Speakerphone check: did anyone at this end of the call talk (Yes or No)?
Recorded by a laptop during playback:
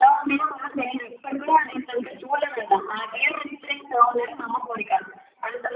No